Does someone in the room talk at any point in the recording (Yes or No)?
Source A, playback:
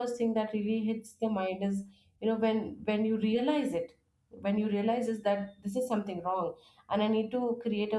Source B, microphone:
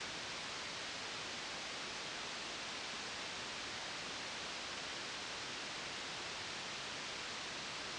No